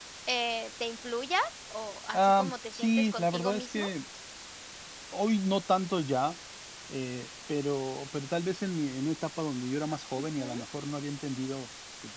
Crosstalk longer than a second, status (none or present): present